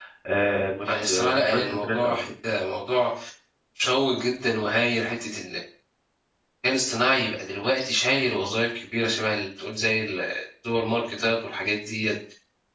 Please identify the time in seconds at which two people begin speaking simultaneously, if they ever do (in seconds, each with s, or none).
0.9 s